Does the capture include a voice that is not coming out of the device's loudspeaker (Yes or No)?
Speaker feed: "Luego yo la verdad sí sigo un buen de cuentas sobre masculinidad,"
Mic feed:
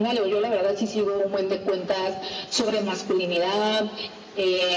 No